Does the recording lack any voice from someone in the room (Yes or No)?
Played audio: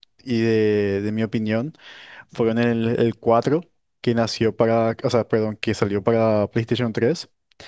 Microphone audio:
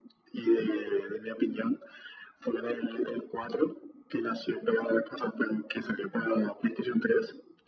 Yes